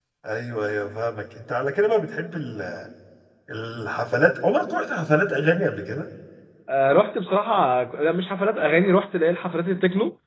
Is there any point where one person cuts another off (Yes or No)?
No